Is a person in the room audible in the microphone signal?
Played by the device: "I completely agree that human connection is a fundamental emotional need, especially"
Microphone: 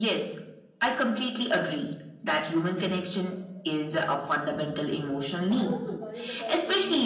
Yes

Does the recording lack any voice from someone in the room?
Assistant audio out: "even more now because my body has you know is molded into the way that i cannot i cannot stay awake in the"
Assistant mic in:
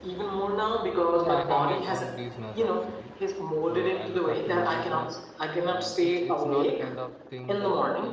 No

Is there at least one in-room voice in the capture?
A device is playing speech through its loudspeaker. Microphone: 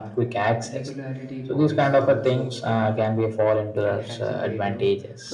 Yes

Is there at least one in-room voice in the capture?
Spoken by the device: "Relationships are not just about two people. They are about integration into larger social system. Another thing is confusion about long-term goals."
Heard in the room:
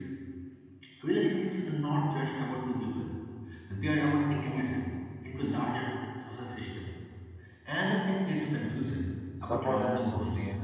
Yes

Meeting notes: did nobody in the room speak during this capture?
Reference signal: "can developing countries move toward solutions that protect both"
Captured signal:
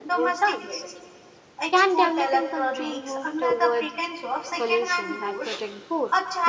No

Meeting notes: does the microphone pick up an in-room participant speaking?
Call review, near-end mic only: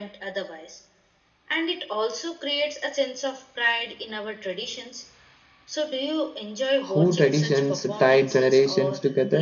Yes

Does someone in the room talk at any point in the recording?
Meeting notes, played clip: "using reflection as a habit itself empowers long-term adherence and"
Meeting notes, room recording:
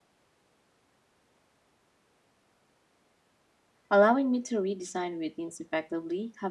Yes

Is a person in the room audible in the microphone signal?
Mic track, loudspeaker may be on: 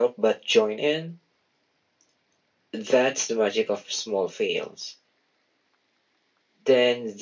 No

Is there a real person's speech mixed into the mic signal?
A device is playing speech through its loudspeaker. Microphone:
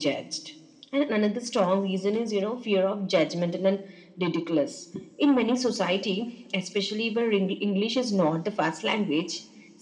No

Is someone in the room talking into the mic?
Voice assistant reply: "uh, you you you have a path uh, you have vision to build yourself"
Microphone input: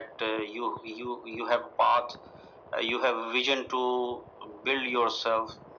No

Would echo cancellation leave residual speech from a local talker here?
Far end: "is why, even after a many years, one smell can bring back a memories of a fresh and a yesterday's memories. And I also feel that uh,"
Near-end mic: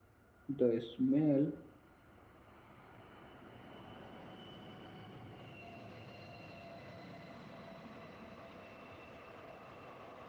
Yes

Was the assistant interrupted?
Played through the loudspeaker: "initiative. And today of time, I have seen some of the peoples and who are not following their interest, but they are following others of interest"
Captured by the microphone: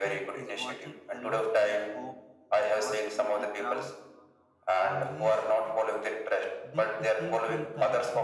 Yes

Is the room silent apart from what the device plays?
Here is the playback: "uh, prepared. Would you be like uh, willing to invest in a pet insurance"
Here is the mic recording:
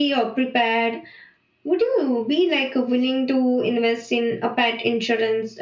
Yes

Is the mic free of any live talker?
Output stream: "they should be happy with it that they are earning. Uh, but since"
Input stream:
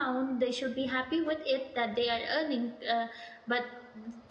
Yes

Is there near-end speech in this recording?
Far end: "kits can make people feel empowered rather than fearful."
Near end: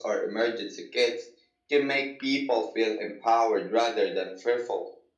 No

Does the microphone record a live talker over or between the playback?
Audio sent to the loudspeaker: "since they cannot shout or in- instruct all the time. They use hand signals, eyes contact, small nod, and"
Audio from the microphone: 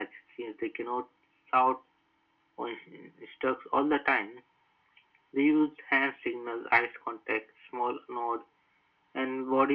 No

